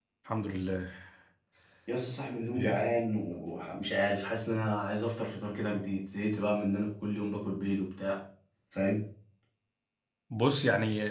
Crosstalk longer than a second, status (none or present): none